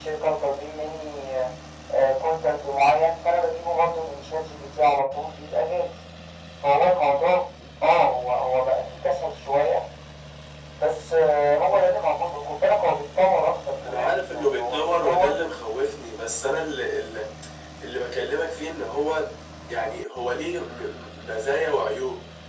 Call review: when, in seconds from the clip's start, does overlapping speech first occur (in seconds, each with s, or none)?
13.8 s